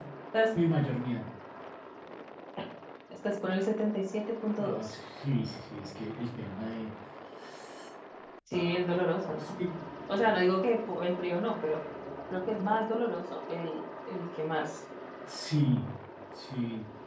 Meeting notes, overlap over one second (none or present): none